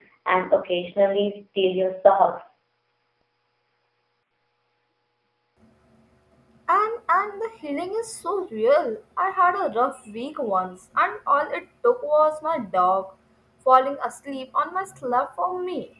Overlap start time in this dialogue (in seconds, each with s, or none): none